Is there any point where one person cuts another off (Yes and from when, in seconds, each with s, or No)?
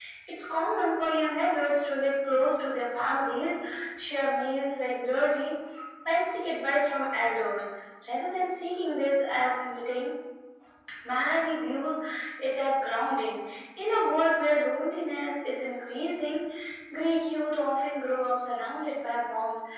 No